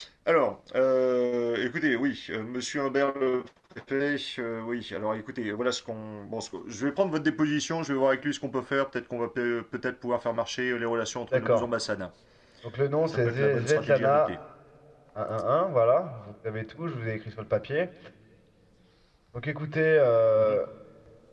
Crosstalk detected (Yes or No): Yes